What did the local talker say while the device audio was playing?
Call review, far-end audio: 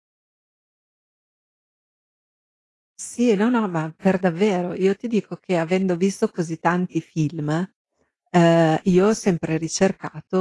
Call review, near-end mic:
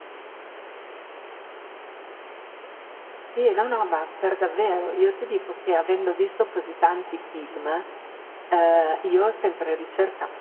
none

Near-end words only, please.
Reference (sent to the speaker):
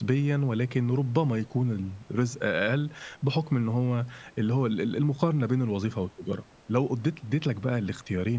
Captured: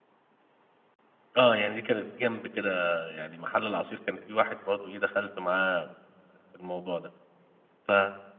آه، يعني دي كانت جنب كده يعني محل العصير كان في واحد برضه إيه دخلت معاه في الموضوع ده، ف

